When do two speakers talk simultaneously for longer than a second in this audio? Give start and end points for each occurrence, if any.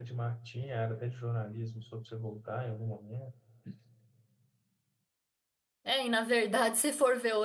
none

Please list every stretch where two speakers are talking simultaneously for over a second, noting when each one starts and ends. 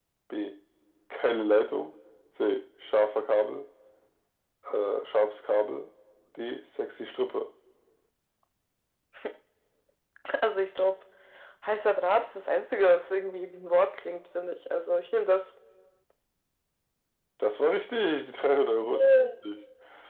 none

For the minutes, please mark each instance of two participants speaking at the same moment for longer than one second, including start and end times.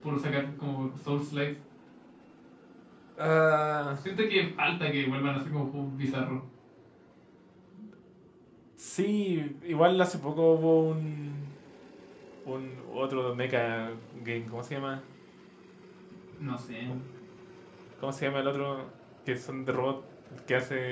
none

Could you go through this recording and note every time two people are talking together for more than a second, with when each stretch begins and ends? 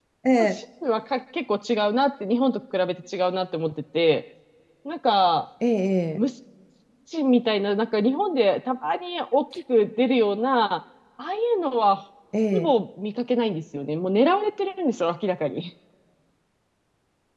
none

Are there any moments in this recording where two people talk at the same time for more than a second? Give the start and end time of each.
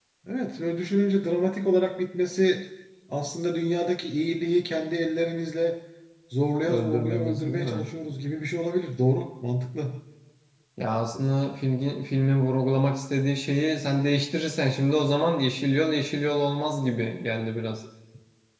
6.7-7.9

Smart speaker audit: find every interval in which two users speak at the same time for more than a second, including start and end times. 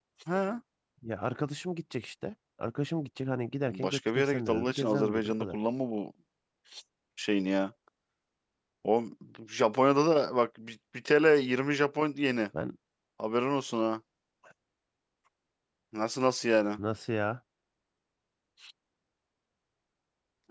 3.6-5.6

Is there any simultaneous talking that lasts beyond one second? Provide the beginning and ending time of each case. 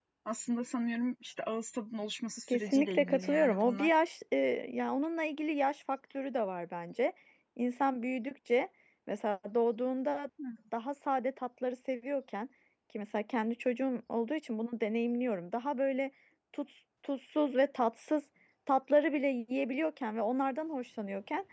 2.5-3.9

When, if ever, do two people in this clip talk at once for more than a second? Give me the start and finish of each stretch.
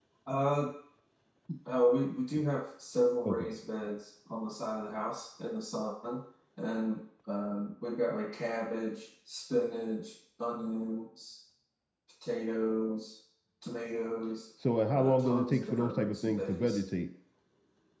15.0-16.8

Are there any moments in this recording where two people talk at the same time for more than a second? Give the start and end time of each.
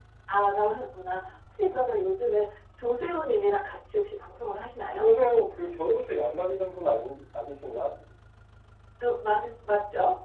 none

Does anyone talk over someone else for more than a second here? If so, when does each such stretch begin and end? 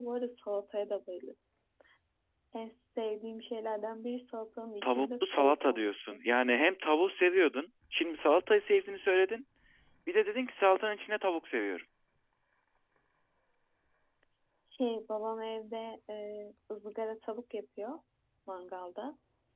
4.8-6.2

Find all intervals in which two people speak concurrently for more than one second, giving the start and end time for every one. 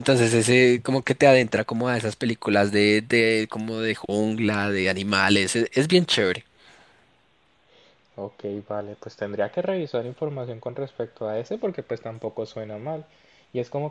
none

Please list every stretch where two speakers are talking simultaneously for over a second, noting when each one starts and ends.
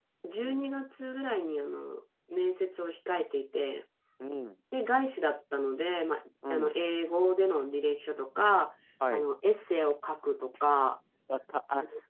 none

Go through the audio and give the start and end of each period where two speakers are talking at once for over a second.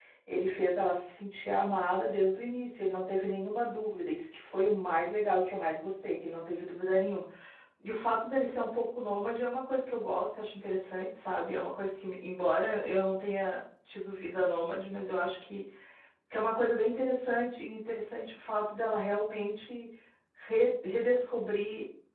none

